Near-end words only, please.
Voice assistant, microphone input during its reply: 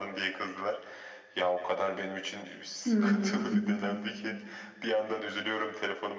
Hmm.

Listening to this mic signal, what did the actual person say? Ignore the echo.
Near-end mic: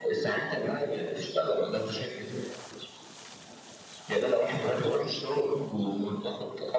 none

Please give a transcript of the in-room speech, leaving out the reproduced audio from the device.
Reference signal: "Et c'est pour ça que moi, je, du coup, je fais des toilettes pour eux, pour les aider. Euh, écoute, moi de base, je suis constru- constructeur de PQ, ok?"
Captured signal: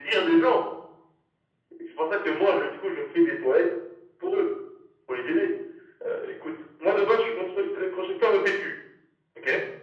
none

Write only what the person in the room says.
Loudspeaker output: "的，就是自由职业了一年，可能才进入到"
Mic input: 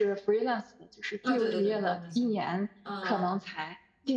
啊、对对对，高分线，嗯

